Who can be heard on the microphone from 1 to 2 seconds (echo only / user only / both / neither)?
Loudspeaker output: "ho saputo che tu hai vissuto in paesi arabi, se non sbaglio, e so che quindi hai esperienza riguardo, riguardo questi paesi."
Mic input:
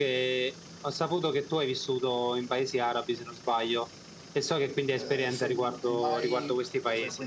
echo only